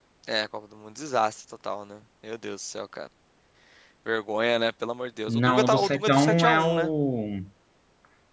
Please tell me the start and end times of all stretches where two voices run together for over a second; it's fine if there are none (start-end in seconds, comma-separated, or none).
5.3-6.9